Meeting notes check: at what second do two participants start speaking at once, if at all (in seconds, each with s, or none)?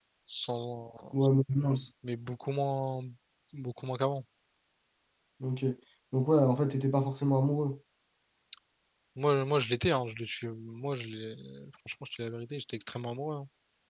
none